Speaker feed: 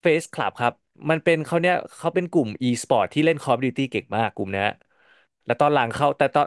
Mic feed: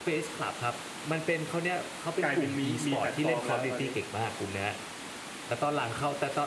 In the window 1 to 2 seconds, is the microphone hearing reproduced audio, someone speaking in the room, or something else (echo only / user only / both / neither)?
echo only